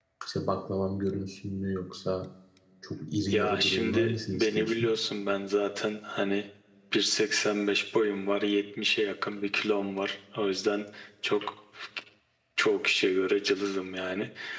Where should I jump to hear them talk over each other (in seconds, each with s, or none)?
3.3 s